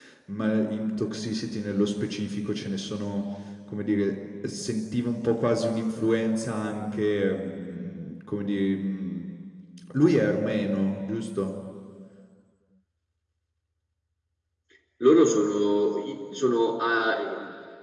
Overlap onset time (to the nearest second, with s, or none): none